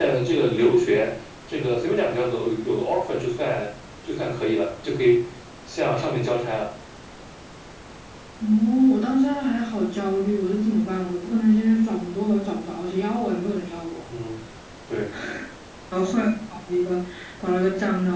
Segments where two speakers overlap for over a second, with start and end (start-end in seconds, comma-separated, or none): none